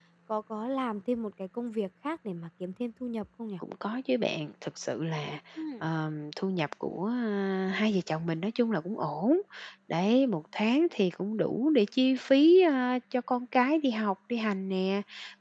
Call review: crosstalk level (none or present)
none